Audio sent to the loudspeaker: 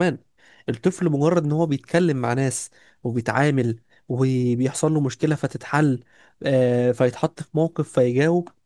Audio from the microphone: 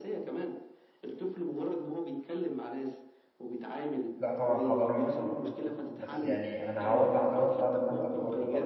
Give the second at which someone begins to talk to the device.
4.2 s

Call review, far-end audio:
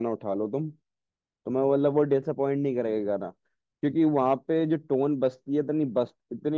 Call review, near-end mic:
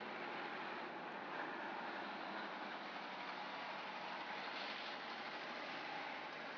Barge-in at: none

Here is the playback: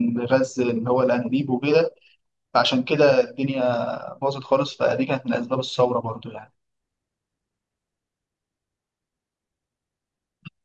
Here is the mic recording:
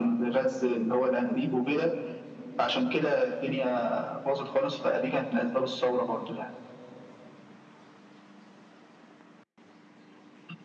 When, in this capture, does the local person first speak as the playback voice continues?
none

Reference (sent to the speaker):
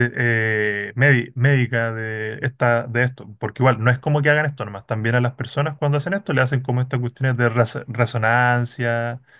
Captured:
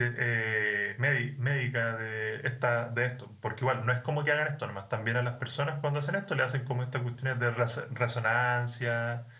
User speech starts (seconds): none

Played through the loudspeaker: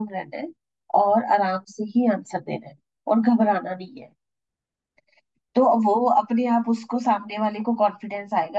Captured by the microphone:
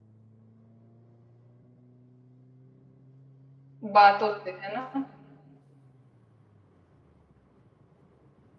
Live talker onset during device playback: 3.9 s

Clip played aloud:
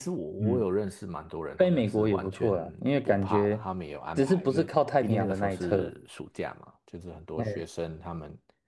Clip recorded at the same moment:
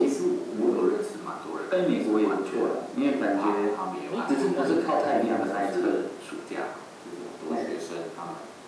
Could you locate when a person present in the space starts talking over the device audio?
4.1 s

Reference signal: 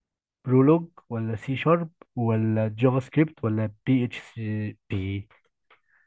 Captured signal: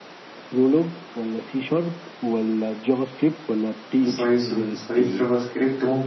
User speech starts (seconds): 4.0 s

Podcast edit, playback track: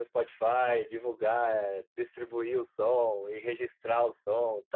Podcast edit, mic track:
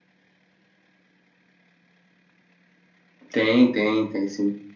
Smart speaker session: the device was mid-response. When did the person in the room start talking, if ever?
3.3 s

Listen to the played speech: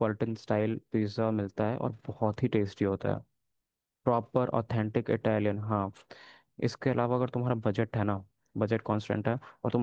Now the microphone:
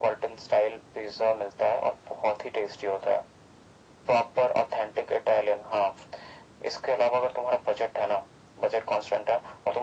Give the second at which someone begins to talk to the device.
none

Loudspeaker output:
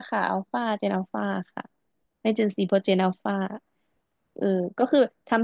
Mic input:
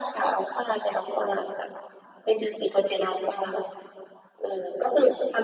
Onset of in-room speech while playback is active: none

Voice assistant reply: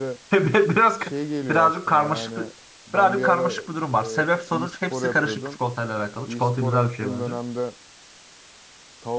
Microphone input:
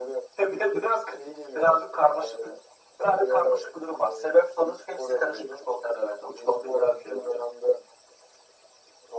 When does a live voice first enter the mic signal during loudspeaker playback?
none

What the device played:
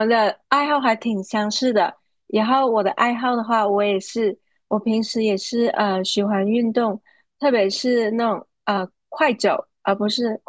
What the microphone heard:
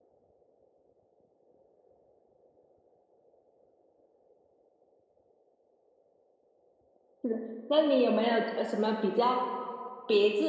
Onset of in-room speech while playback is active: 7.2 s

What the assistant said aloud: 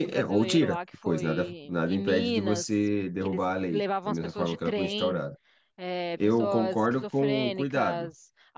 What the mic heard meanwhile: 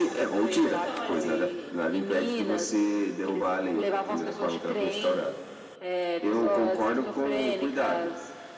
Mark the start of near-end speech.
0.7 s

